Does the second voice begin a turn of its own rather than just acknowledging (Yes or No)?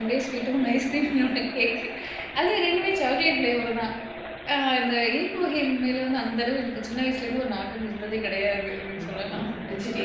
Yes